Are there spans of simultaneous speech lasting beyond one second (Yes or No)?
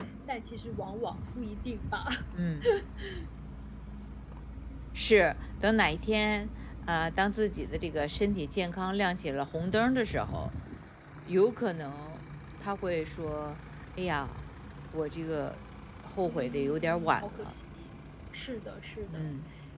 Yes